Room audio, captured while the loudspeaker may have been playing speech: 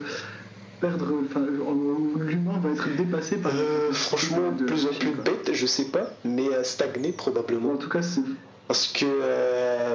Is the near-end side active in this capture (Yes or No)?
No